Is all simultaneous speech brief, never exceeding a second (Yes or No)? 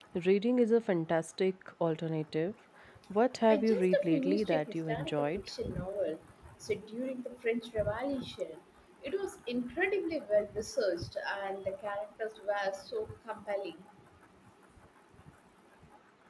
No